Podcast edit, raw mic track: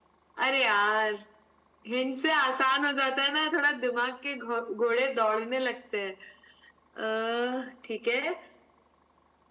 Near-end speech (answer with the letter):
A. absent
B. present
A